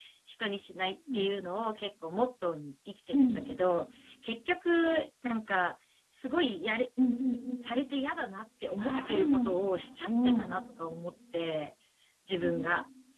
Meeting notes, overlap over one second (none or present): present